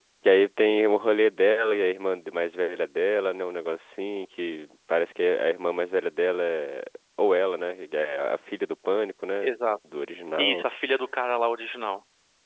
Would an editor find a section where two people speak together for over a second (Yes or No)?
No